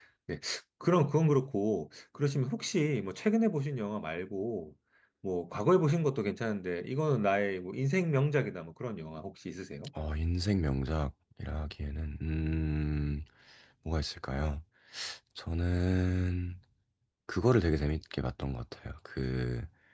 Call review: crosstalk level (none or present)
none